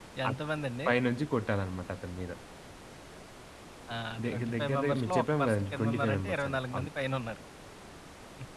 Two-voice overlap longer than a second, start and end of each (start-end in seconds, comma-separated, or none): 4.3-6.9